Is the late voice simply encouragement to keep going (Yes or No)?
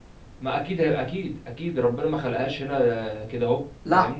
No